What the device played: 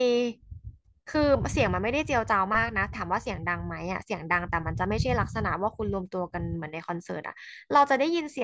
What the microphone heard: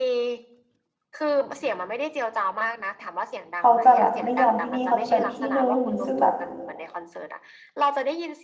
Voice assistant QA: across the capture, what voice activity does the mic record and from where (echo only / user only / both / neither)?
both